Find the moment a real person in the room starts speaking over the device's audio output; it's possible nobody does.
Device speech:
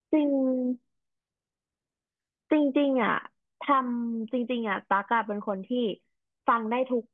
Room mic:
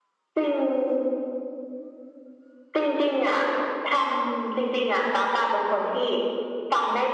none

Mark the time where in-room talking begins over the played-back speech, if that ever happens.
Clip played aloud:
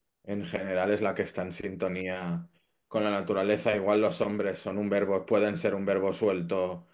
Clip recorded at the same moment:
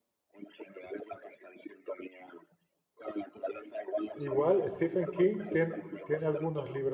4.2 s

